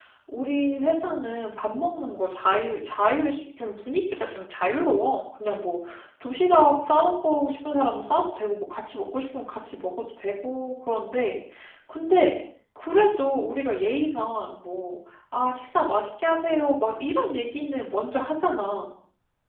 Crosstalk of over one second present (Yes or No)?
No